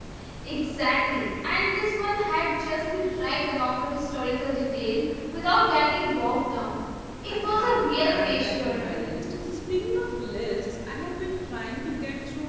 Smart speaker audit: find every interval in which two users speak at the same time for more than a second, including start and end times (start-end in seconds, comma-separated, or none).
7.3-9.0